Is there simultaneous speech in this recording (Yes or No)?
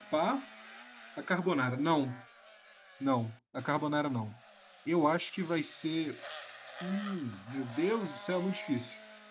No